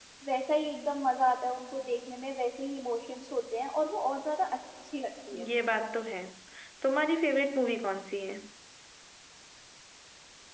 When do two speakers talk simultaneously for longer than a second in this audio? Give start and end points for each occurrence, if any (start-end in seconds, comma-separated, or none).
none